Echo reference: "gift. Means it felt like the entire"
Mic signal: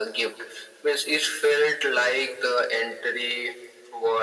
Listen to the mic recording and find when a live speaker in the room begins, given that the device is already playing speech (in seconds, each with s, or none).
none